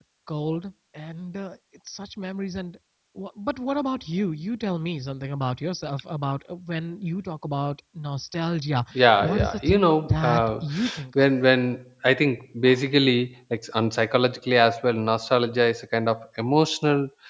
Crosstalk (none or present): present